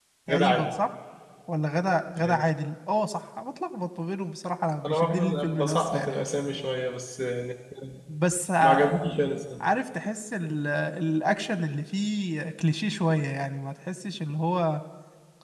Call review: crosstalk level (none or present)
present